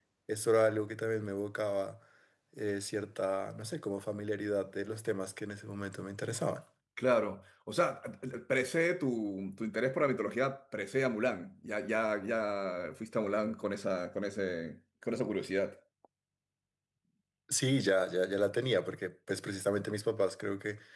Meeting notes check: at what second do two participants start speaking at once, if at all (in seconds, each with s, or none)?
none